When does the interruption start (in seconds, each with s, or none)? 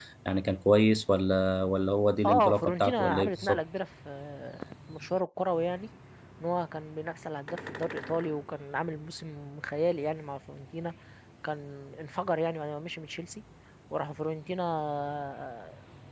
2.2 s